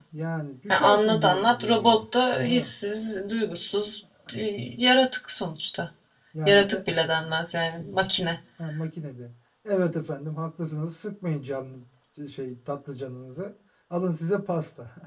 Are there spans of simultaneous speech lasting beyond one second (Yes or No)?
Yes